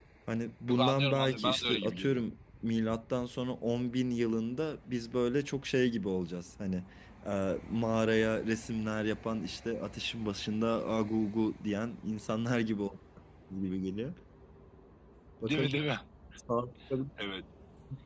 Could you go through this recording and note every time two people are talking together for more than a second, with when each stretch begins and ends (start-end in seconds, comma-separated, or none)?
0.7-2.2